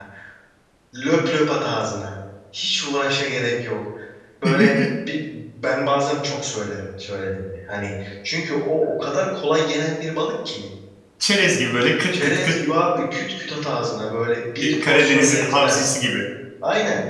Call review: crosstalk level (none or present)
present